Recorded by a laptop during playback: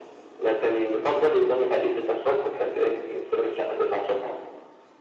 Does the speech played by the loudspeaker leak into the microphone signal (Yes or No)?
Yes